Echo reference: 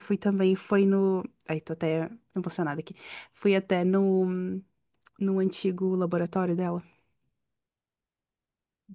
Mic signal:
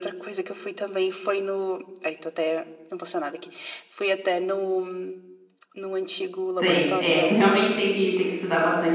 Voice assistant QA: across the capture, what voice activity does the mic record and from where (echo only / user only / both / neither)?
both